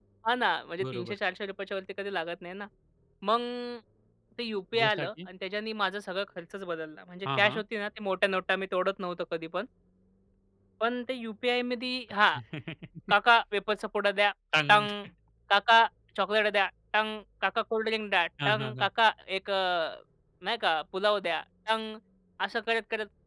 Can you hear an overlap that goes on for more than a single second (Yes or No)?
No